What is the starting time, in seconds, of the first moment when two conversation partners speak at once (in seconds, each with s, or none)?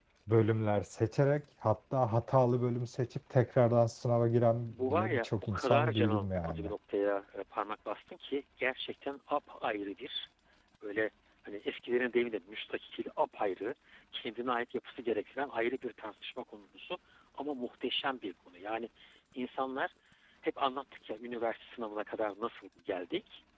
4.7 s